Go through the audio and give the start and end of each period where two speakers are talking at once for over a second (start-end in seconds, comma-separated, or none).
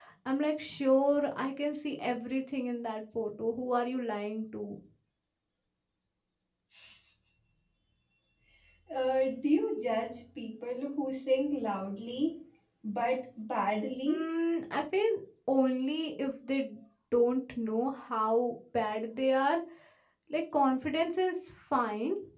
none